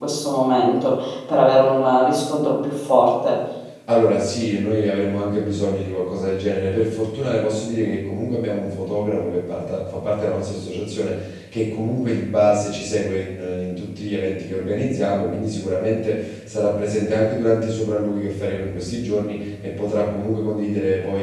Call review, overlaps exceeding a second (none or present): none